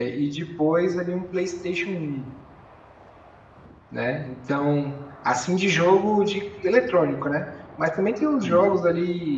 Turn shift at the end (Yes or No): No